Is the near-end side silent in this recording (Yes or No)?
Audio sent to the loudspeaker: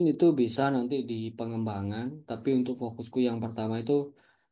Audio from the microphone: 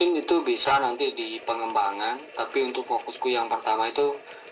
Yes